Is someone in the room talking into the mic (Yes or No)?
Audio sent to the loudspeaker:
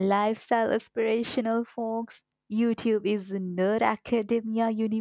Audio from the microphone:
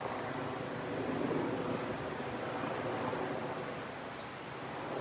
No